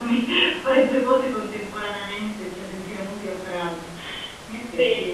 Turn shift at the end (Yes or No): Yes